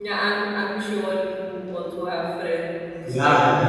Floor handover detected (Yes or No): Yes